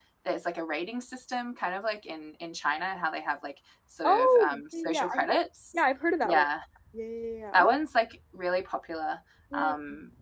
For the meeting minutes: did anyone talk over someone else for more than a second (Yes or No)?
Yes